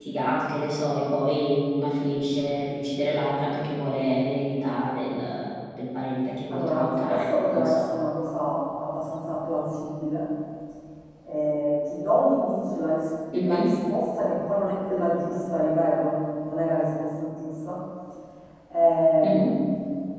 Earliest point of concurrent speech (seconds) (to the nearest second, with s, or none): 7 s